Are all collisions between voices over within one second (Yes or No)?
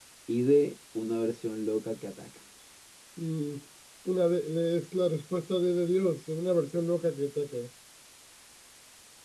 Yes